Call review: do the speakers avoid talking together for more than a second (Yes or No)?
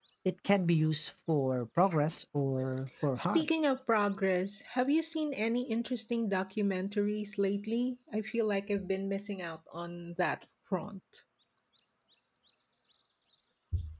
Yes